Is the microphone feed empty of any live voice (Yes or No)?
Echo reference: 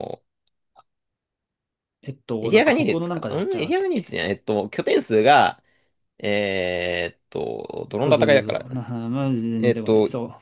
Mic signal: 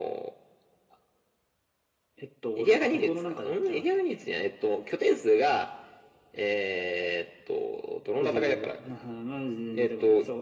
Yes